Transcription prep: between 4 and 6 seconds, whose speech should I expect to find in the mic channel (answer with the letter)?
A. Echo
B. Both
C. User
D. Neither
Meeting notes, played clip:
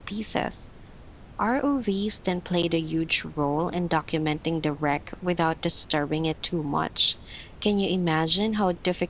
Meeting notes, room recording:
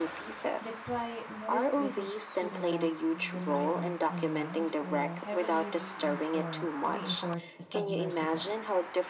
B